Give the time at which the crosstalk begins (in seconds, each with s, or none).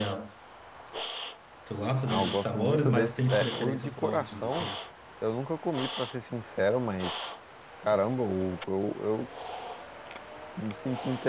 2.1 s